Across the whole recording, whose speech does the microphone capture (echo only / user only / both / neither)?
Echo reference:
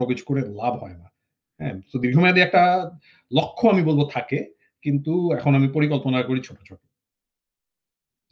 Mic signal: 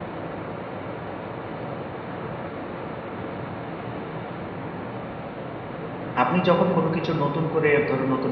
user only